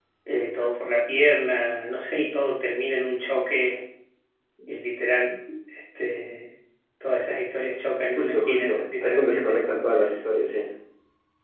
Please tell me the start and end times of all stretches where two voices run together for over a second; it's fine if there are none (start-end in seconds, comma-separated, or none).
8.2-9.7